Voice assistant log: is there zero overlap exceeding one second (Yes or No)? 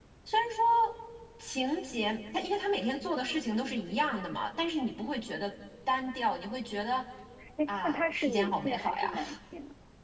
No